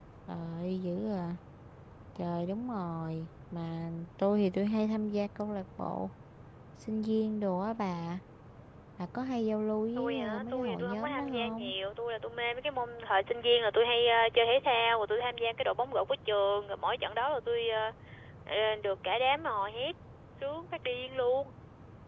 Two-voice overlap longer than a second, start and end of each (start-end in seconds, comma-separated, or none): 10.0-11.7